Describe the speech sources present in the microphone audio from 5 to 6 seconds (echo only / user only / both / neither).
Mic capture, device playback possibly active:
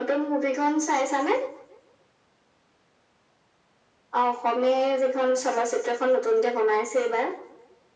echo only